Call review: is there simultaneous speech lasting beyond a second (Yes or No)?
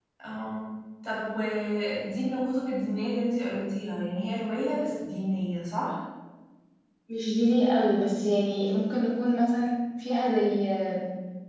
No